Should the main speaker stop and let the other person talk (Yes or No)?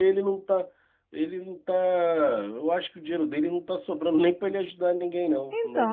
Yes